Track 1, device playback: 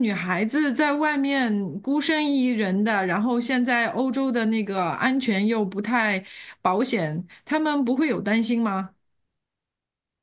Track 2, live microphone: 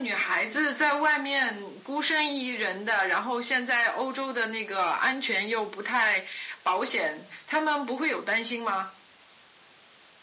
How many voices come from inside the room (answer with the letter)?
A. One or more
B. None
B